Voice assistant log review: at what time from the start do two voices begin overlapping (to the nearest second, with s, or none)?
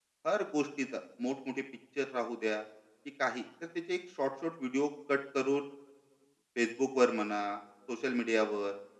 none